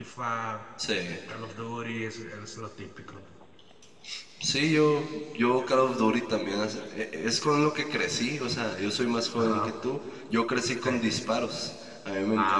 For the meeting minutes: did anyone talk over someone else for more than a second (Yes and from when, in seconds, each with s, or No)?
No